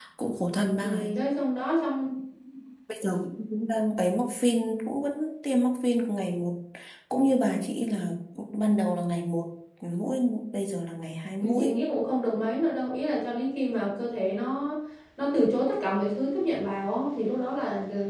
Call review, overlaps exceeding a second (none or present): none